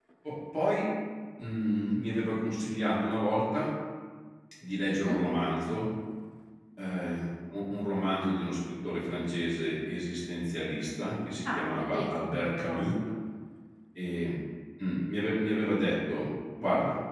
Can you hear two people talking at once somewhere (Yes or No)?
Yes